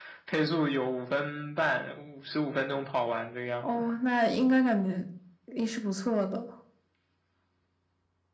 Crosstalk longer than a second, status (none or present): none